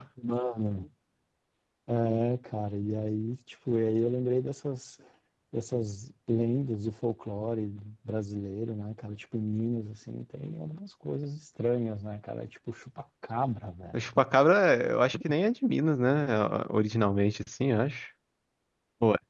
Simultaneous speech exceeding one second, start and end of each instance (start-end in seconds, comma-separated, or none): none